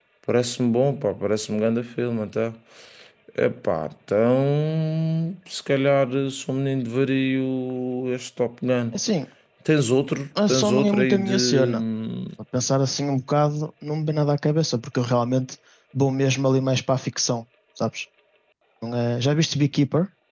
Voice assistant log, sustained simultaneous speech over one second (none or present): present